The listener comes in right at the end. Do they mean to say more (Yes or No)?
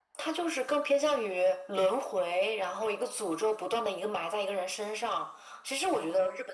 No